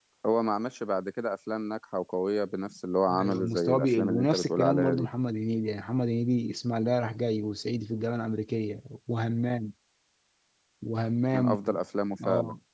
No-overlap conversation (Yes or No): No